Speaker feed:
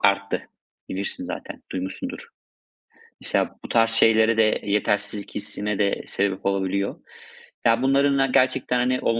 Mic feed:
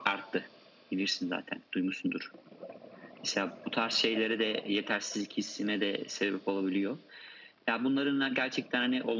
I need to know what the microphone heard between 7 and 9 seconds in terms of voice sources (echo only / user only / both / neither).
echo only